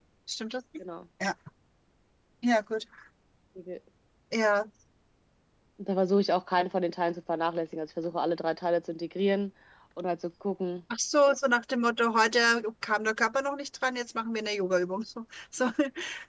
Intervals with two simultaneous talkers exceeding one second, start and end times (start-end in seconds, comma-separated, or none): none